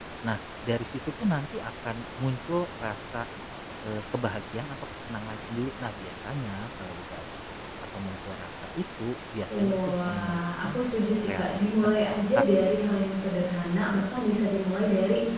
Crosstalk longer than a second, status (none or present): present